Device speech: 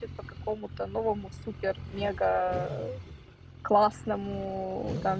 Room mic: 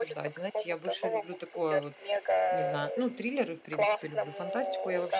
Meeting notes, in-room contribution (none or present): present